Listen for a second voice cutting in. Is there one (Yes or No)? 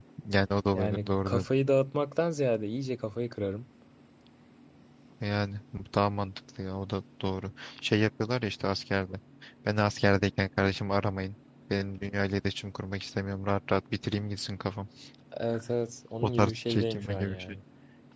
Yes